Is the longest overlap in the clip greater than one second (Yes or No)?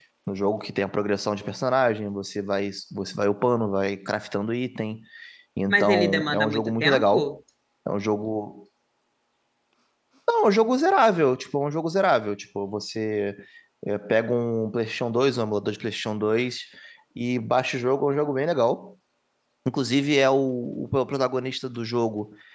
Yes